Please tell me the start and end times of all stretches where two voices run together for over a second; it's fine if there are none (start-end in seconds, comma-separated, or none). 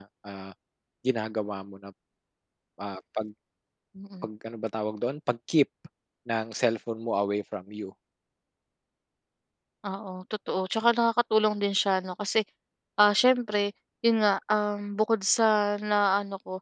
none